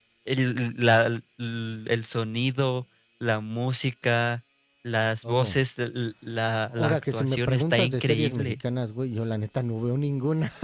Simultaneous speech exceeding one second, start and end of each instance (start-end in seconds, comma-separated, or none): 6.8-8.6